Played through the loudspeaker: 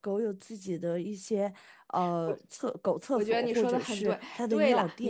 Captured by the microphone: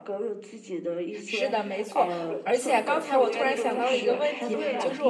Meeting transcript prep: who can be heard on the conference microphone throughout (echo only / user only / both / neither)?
both